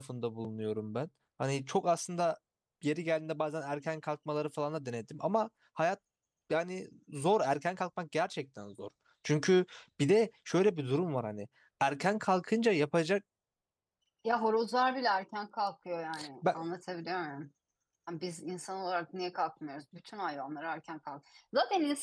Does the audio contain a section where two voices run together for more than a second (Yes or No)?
No